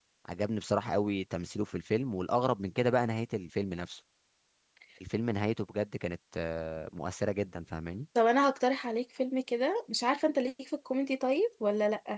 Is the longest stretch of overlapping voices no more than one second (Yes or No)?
Yes